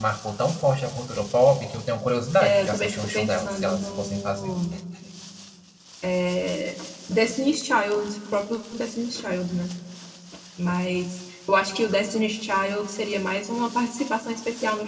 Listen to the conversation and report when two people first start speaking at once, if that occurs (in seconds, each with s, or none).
2.4 s